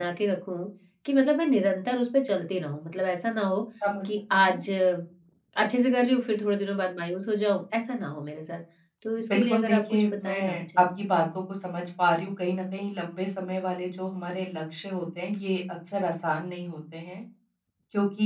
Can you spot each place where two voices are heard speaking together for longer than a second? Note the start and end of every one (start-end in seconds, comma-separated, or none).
9.3-10.8